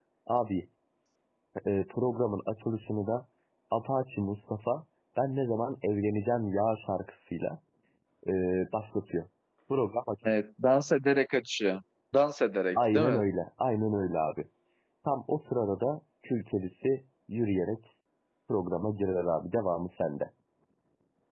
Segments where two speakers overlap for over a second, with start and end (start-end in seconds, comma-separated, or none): none